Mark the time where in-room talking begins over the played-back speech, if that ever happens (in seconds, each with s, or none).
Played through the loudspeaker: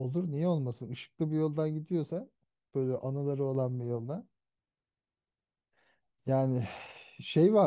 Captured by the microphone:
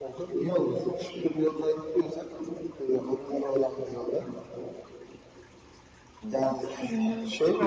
6.2 s